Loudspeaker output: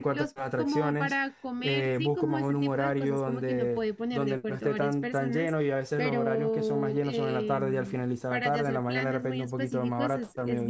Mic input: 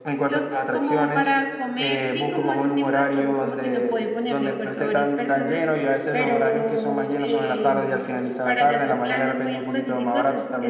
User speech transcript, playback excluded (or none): none